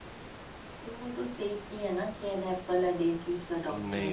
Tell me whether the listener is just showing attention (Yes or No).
No